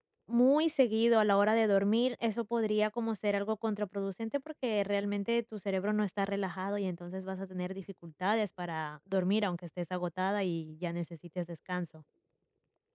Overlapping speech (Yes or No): No